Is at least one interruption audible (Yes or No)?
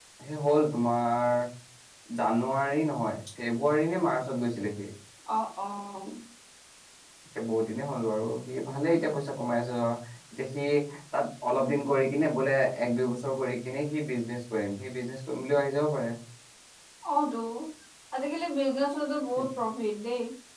No